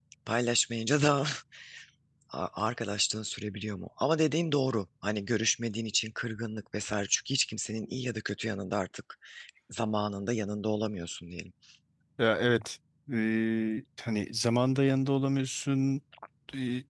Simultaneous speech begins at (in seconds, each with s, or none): none